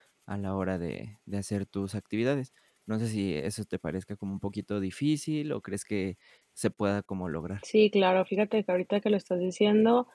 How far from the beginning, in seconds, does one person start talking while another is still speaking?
none

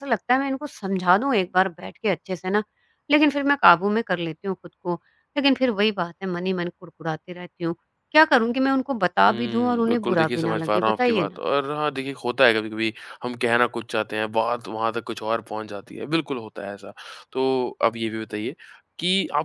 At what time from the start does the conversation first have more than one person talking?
9.3 s

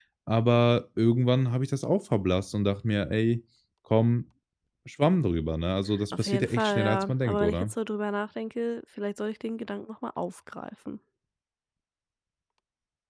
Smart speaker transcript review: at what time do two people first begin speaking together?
5.9 s

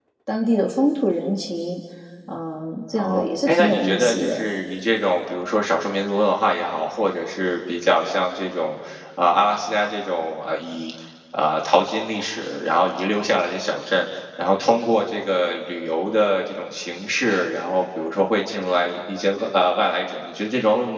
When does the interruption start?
2.9 s

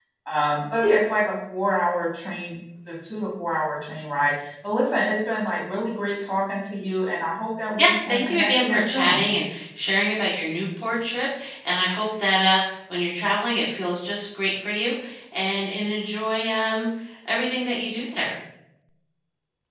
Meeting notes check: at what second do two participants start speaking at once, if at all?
7.8 s

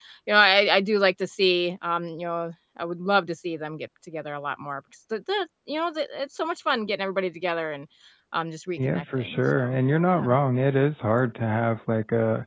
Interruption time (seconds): 8.8 s

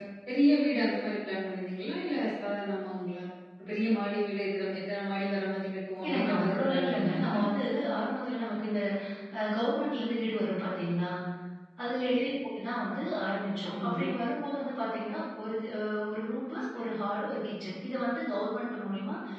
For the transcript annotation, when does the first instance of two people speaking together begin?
6.0 s

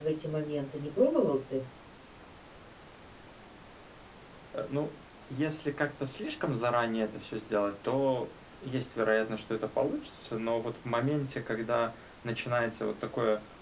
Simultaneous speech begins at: none

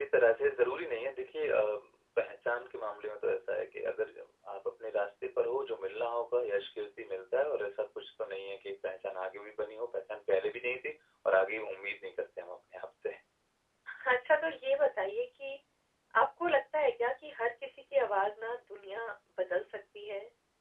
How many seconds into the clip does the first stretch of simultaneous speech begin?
none

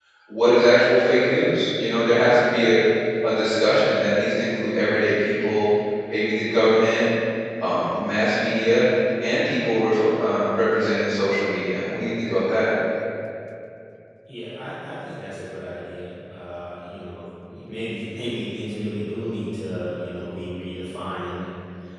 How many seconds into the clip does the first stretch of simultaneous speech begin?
none

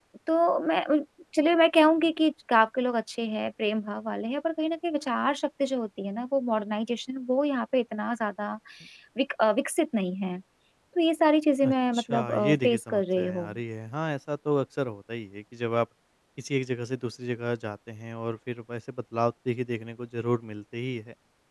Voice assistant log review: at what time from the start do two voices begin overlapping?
11.6 s

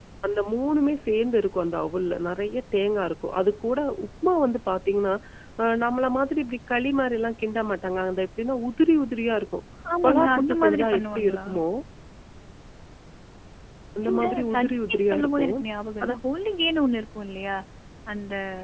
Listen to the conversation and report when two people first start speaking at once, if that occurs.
10.0 s

